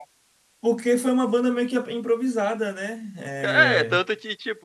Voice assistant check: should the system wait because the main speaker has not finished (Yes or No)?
No